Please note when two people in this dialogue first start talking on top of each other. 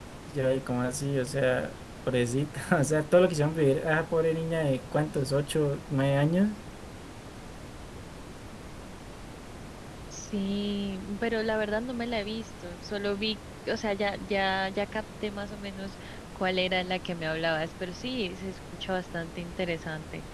none

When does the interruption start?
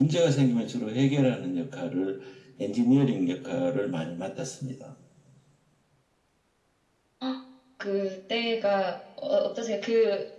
none

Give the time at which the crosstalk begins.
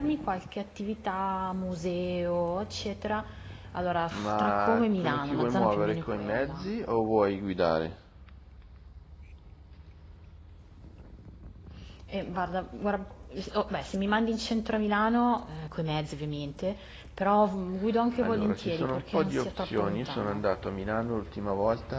4.1 s

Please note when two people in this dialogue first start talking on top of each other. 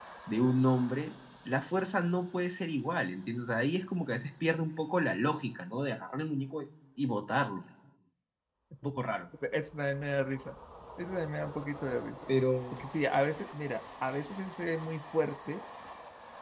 none

